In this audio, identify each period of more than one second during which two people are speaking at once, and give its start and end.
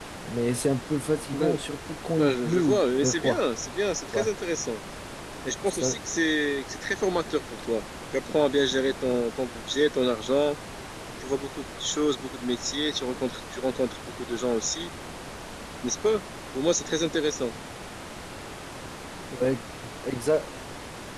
2.2-3.4

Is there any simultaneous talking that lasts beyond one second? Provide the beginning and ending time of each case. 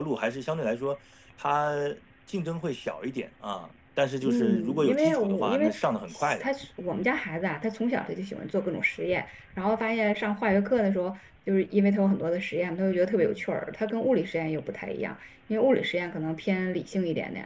4.2-5.7

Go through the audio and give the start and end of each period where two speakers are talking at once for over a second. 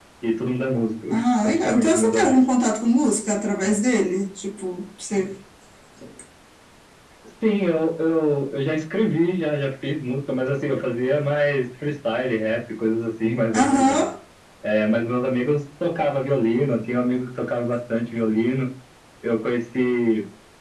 1.1-2.4

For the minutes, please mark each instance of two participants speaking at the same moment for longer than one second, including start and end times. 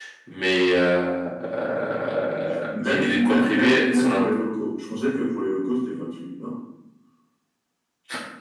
2.8-4.2

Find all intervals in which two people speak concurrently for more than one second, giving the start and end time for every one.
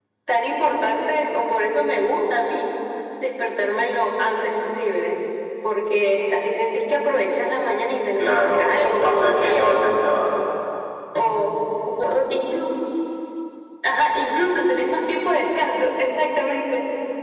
8.2-9.8

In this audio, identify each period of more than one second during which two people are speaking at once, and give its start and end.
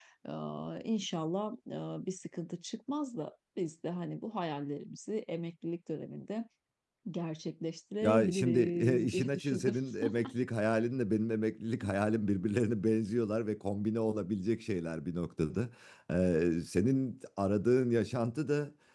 8.0-9.7

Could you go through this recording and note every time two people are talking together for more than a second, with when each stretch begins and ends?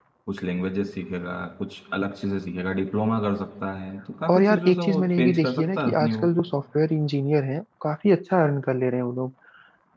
4.3-6.3

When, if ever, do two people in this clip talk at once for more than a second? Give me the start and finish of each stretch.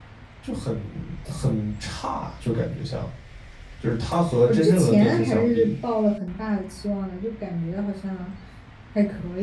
4.5-5.7

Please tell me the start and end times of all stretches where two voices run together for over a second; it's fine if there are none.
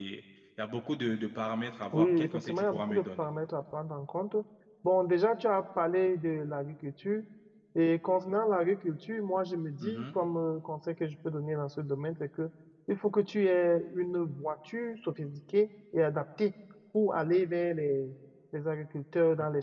1.9-3.2

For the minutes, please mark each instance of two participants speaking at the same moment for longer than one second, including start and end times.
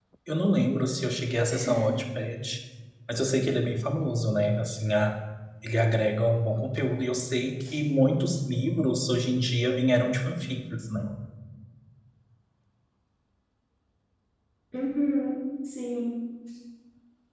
none

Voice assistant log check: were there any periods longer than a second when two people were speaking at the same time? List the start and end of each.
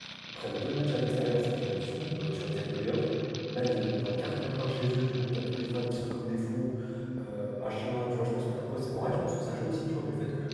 none

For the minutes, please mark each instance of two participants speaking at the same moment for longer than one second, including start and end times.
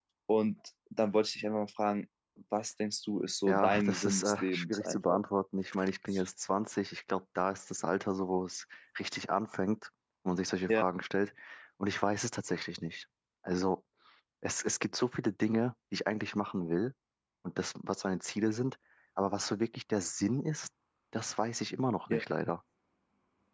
3.4-5.2

